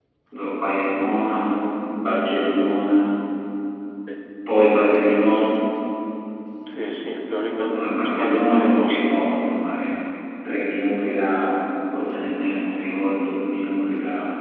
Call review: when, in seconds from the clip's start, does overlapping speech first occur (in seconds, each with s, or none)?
7.6 s